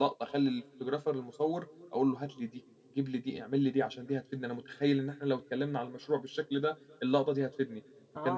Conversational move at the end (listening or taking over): taking over